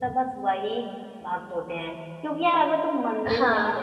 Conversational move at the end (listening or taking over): listening